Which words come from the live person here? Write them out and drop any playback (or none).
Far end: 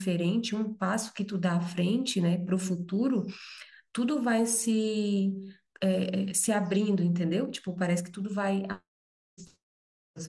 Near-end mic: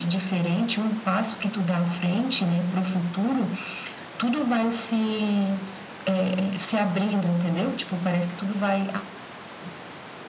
none